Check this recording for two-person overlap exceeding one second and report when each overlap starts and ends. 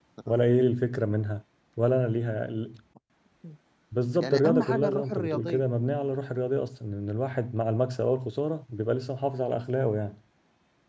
4.2-5.6

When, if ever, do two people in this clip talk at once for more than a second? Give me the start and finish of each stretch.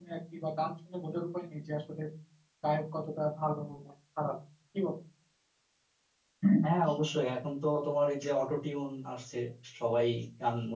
none

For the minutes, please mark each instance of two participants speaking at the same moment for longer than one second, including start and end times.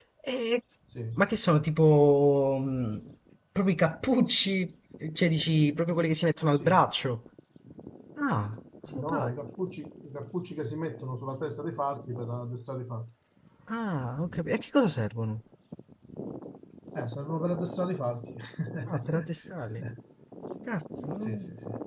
none

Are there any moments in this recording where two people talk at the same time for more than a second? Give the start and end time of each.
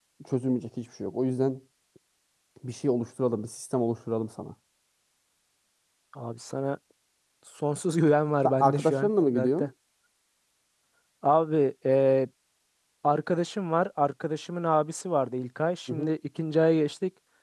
8.4-9.7

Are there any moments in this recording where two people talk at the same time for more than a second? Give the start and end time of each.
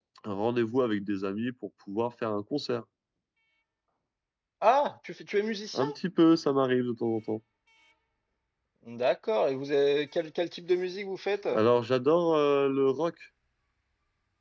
none

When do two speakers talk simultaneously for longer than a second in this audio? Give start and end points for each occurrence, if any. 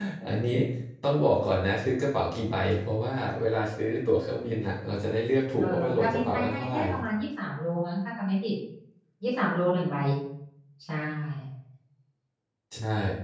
5.6-6.8

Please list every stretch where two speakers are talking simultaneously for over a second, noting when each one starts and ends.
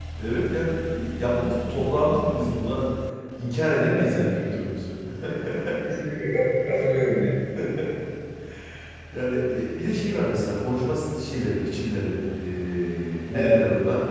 none

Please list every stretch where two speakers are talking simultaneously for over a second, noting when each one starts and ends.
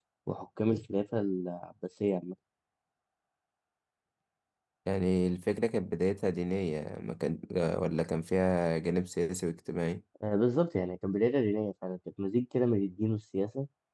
none

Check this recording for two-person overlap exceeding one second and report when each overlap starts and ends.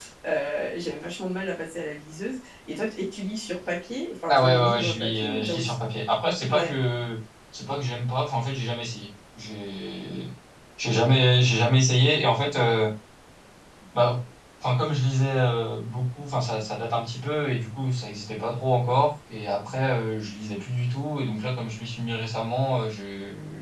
4.3-5.7

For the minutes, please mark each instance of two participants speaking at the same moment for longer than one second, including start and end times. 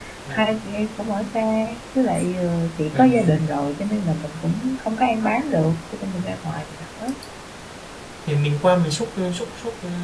none

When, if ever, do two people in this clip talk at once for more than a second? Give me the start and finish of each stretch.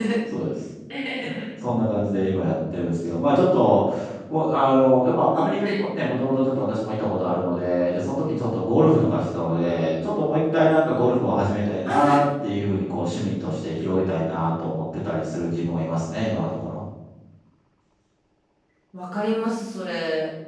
none

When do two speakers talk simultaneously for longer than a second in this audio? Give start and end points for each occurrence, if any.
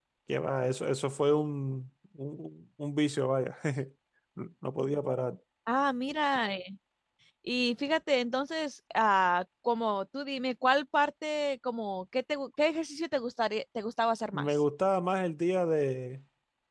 none

